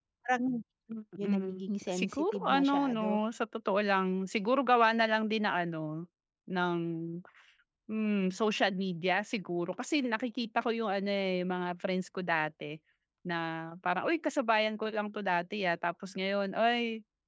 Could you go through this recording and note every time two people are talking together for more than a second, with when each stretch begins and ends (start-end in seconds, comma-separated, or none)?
1.2-3.1